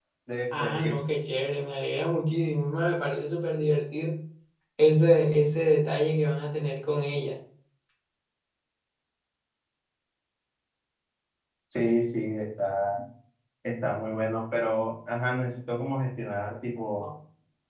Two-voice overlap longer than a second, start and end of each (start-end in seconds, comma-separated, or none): none